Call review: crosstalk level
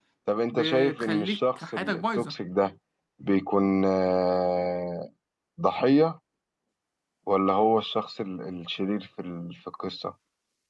present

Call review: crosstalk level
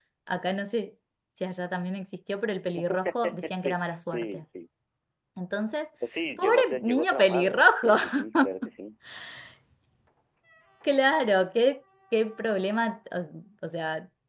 present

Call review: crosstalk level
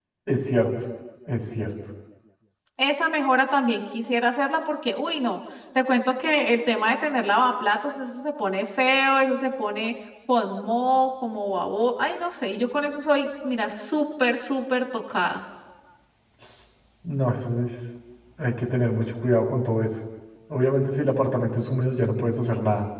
none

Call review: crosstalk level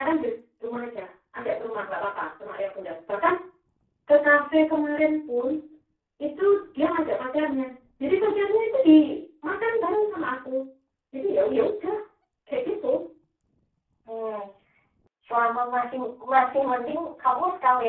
none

